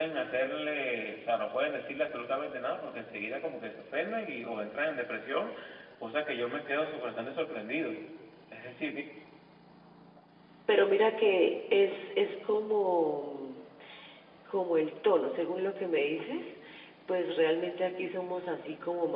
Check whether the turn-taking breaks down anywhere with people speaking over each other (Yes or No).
No